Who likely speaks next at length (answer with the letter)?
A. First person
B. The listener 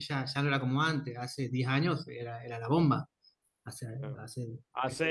B